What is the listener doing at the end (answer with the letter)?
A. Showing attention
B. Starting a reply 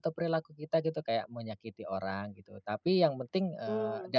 A